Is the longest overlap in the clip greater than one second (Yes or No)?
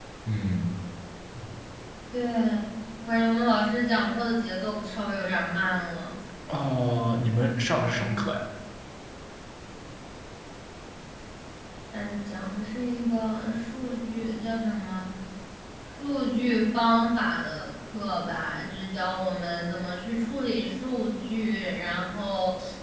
No